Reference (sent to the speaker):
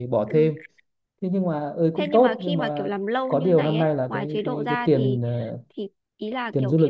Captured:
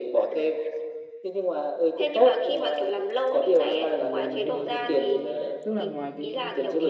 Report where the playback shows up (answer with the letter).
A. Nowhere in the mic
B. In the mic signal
B